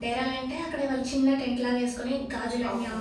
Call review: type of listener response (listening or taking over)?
listening